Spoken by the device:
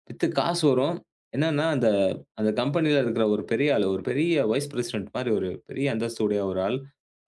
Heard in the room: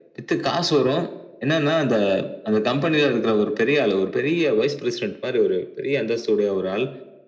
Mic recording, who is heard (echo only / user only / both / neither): echo only